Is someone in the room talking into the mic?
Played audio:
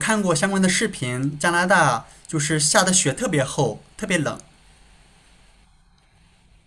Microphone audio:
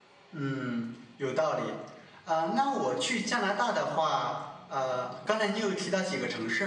Yes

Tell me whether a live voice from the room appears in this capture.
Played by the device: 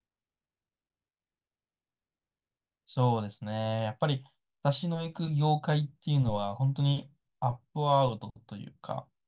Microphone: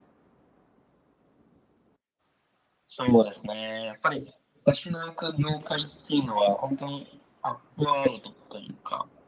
No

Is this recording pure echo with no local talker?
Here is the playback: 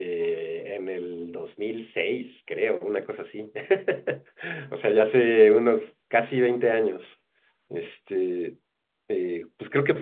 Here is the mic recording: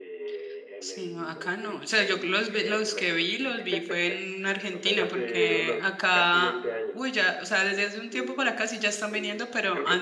No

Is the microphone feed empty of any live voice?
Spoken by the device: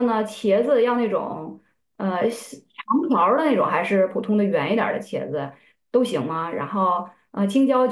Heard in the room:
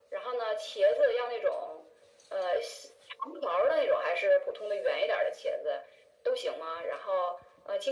Yes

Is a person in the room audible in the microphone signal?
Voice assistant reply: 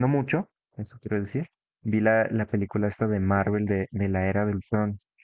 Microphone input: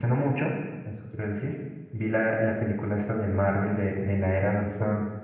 No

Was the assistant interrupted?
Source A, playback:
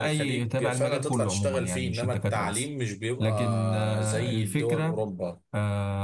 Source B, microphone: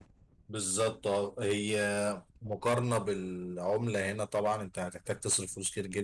Yes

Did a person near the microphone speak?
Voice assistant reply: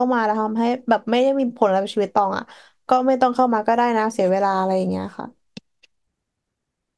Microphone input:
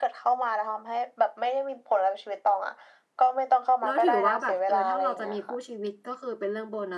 Yes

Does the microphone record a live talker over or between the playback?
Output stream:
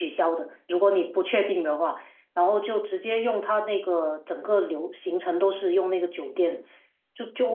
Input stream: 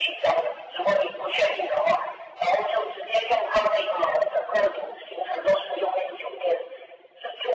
No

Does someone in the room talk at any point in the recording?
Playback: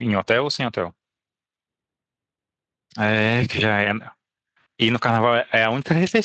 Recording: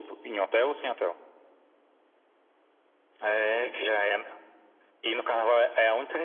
No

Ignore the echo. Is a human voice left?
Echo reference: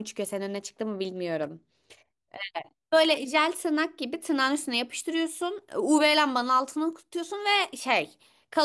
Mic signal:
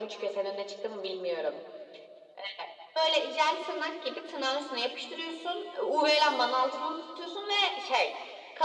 No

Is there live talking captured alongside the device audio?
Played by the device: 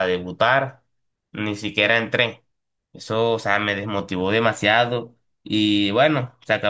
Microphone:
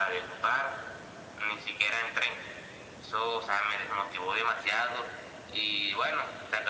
No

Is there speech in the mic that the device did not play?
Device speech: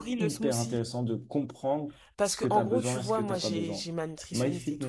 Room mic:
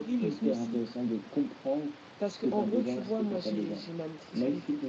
No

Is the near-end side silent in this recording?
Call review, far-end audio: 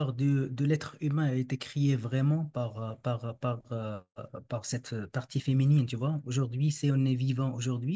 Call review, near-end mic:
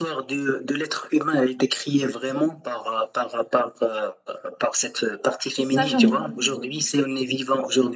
No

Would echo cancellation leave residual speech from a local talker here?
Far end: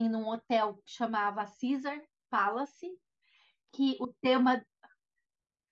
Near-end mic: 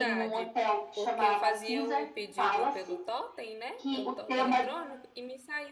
Yes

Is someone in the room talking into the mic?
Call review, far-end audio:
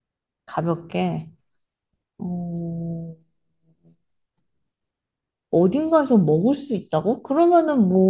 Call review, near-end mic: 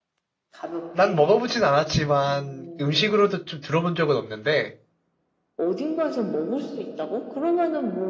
Yes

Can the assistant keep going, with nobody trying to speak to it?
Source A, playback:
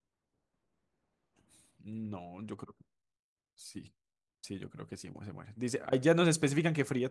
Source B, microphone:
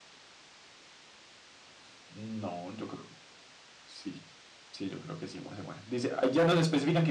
Yes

